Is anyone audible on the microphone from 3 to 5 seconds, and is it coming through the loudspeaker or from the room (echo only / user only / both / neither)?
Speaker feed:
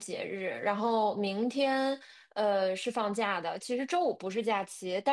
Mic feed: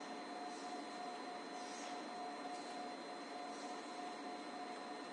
neither